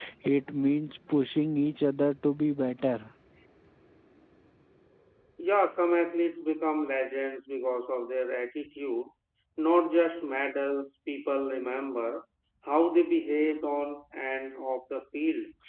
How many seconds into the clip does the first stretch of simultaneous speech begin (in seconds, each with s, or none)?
none